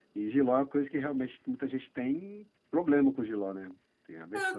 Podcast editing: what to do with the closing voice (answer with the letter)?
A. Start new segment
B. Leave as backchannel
A